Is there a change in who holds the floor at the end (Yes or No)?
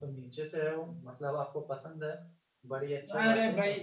Yes